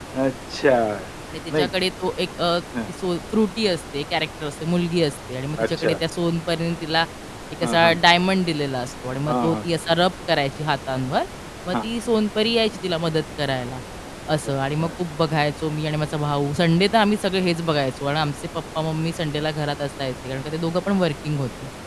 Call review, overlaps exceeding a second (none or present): none